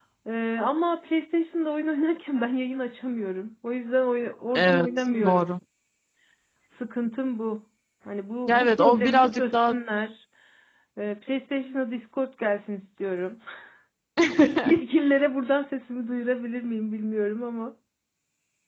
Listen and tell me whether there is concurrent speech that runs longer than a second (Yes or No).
Yes